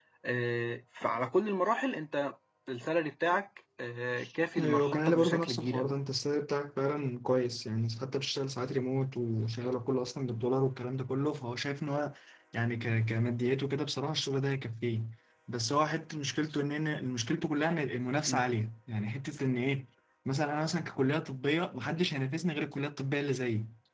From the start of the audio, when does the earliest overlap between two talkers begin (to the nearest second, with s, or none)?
5 s